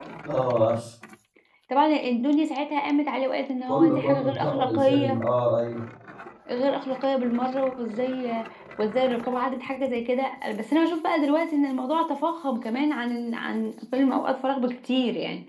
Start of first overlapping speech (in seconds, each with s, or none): 3.7 s